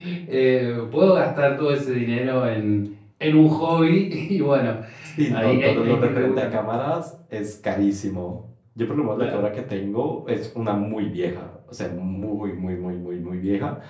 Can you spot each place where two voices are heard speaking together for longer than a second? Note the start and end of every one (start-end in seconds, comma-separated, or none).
5.3-6.6